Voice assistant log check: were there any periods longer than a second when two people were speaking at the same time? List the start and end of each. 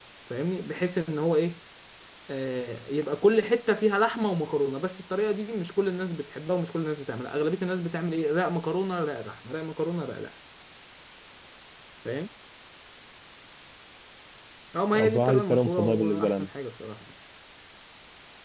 14.9-16.5

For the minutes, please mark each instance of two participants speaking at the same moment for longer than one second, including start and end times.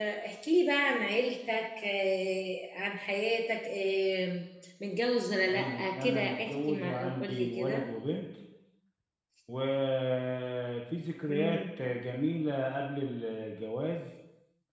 5.5-7.9

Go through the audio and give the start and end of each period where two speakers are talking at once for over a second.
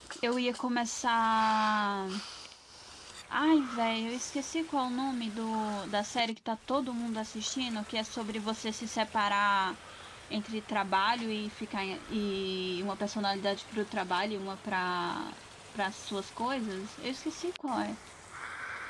none

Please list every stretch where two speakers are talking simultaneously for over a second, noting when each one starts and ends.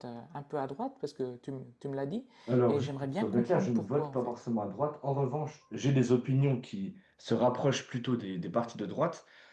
2.7-4.3

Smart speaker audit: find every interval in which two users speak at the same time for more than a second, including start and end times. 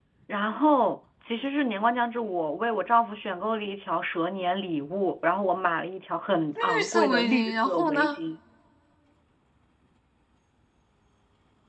6.6-8.2

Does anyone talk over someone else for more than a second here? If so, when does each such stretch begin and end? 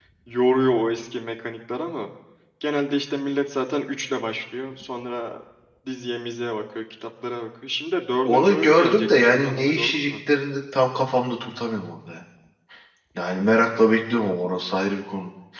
8.2-10.1

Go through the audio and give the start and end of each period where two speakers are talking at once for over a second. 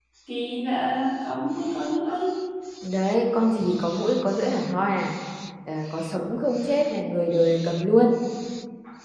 none

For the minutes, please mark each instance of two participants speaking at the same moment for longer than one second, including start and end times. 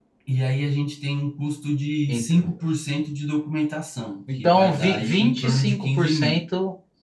4.4-6.5

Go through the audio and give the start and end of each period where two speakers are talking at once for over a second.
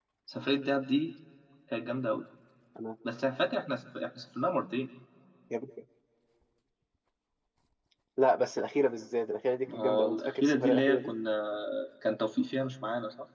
9.7-11.1

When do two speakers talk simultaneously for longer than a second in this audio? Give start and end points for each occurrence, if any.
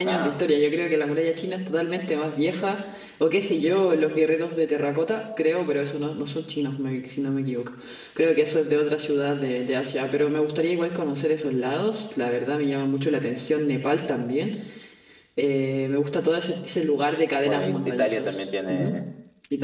17.2-18.9

